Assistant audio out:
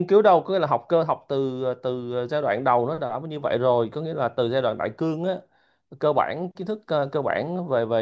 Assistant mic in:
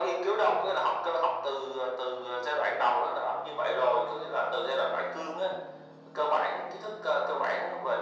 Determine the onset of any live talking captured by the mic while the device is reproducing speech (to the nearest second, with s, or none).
none